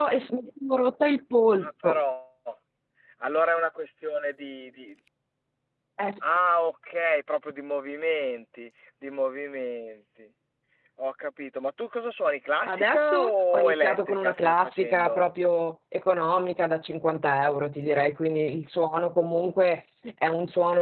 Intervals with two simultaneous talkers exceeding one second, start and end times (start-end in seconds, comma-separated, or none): 12.7-15.2